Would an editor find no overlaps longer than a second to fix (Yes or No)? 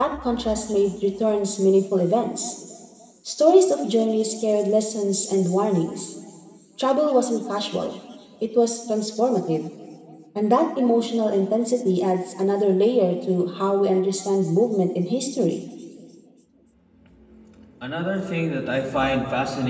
Yes